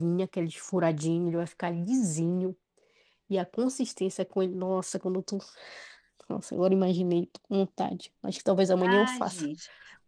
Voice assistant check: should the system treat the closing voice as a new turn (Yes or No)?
Yes